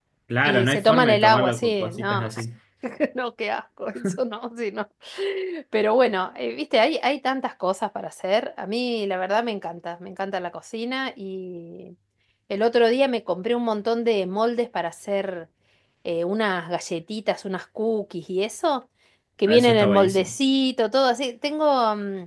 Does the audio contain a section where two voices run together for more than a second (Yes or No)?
Yes